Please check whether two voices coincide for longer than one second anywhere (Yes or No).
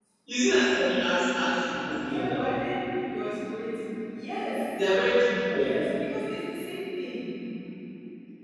No